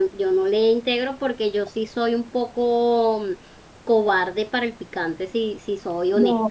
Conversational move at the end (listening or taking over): taking over